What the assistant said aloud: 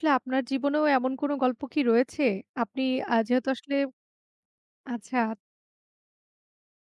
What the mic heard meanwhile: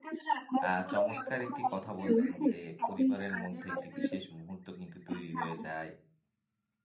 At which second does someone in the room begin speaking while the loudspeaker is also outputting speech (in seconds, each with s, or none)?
0.6 s